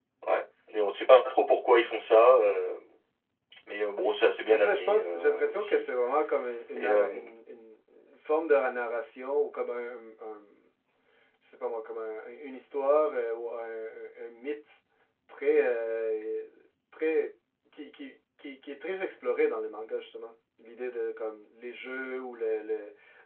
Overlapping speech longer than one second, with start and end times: 4.5-5.8

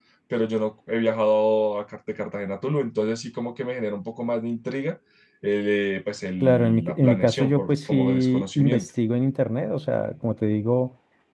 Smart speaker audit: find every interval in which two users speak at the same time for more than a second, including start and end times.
6.4-8.9

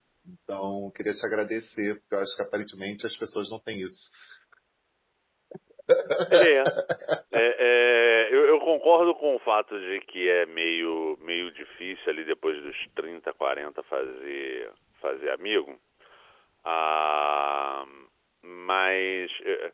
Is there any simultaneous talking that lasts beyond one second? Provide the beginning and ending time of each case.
none

